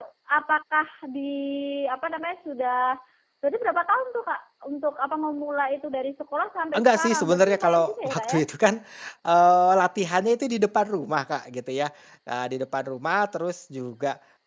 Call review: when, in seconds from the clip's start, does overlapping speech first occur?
6.7 s

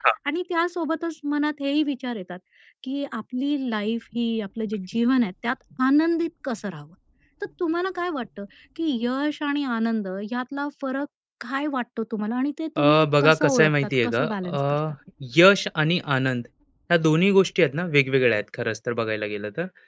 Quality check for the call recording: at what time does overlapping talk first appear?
12.8 s

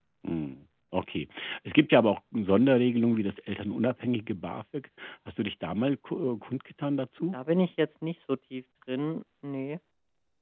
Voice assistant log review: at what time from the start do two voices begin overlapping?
none

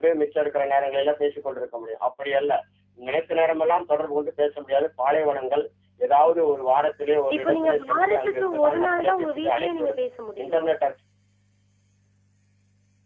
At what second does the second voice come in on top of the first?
7.3 s

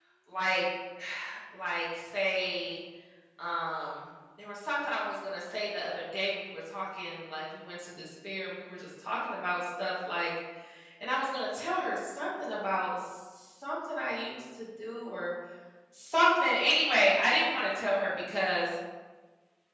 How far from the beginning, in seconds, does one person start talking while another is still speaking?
none

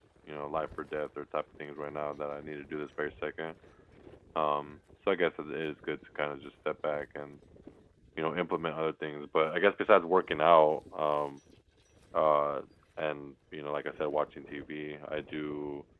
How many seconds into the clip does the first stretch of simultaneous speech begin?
none

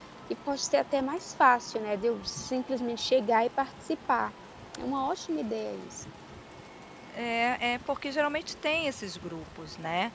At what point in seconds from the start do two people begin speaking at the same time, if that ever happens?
none

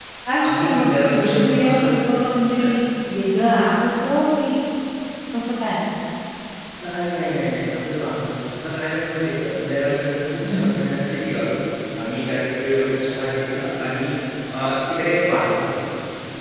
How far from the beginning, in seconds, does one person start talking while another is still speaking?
0.5 s

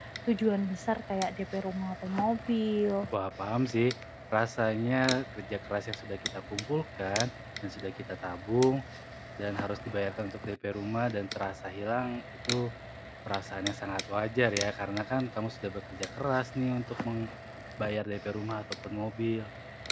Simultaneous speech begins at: none

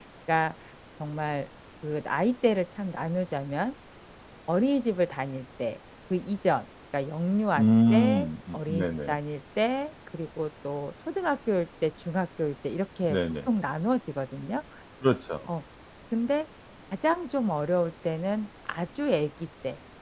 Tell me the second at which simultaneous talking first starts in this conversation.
7.6 s

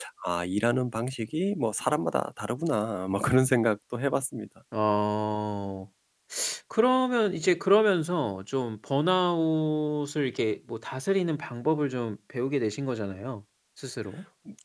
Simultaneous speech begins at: none

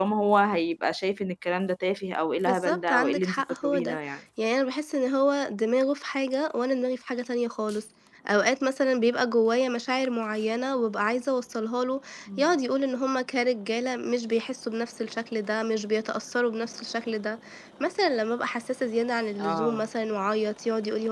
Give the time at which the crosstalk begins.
2.4 s

